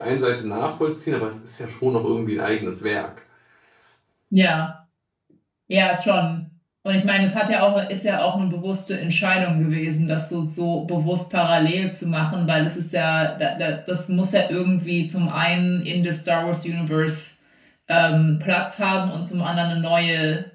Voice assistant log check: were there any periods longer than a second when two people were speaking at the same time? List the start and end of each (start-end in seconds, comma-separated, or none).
none